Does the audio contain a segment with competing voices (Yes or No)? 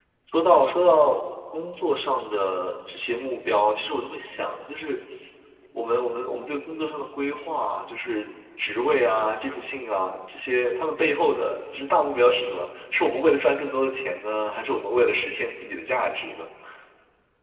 No